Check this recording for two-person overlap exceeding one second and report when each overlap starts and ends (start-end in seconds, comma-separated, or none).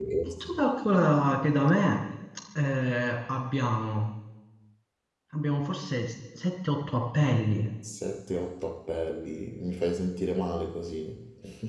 none